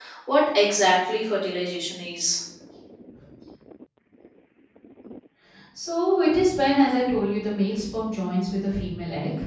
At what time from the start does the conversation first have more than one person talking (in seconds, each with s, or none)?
none